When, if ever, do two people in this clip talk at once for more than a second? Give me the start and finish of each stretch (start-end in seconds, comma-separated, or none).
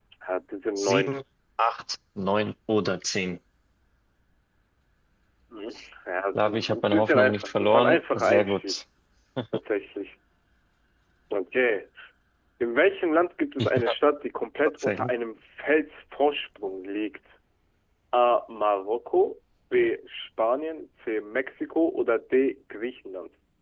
6.3-8.8